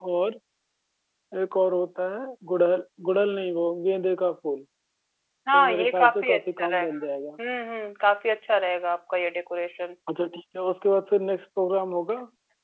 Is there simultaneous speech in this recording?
Yes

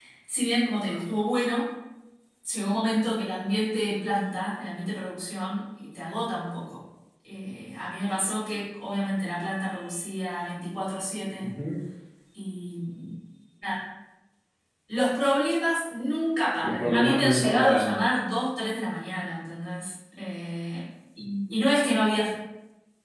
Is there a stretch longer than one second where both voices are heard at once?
Yes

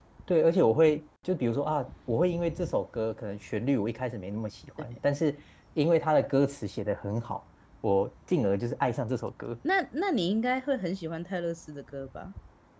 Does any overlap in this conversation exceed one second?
No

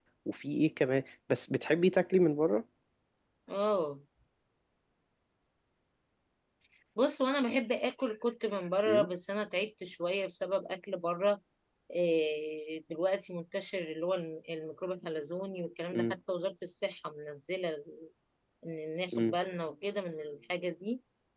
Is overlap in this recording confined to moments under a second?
Yes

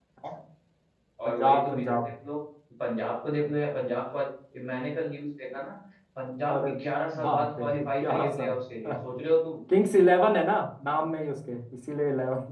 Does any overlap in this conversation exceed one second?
Yes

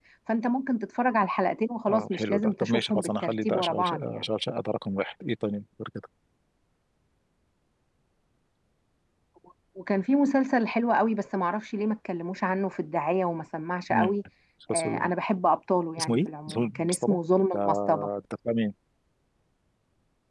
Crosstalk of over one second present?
Yes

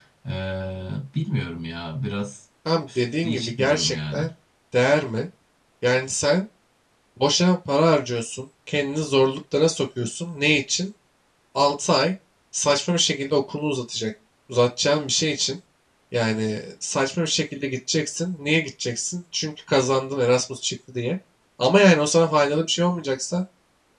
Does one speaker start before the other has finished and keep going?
Yes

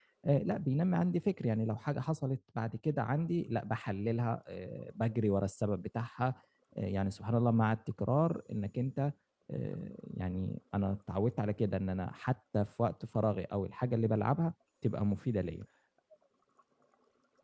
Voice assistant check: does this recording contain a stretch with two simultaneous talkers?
No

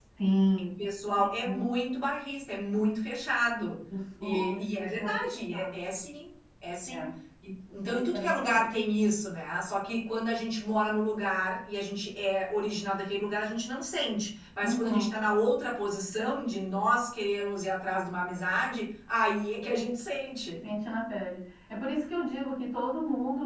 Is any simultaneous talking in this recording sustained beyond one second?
Yes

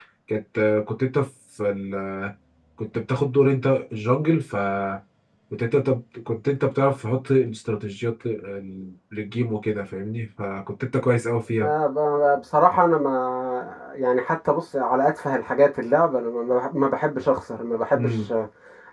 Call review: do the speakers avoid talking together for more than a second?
Yes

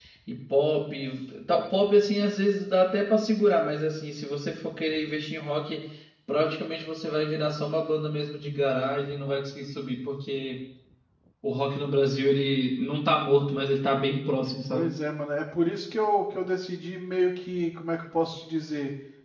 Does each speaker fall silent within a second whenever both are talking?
Yes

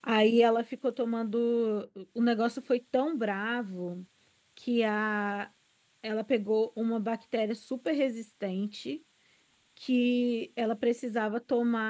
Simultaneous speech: No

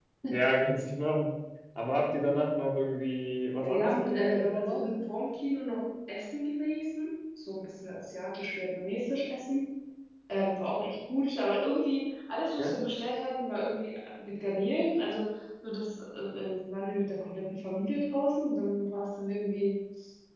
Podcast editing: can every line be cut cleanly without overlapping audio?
No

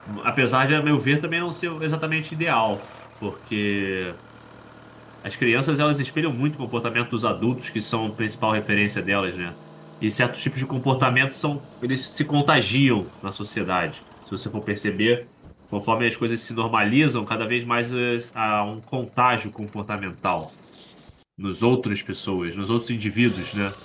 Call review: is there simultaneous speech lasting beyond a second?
No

